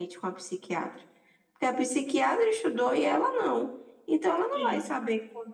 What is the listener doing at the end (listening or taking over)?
listening